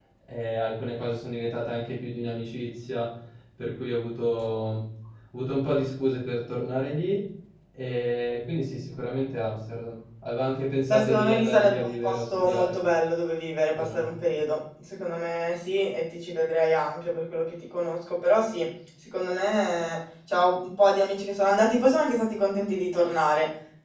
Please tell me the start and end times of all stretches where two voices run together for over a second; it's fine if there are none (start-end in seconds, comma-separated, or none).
10.9-12.8